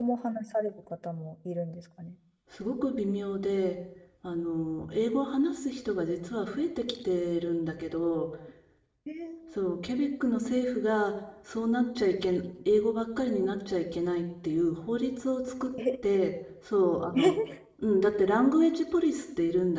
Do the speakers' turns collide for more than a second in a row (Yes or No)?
No